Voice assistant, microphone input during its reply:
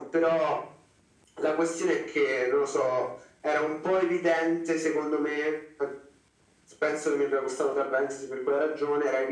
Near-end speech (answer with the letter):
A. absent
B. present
A